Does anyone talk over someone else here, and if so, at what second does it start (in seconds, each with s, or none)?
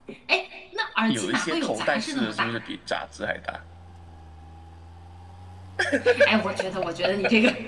1.1 s